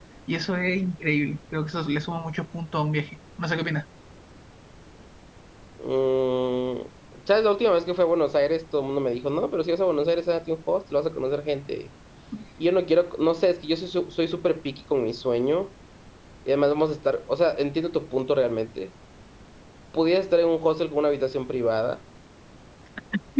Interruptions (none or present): none